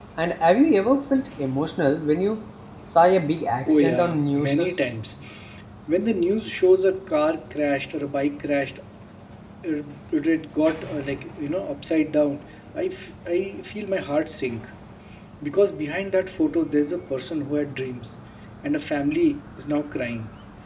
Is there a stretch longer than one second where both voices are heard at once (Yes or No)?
Yes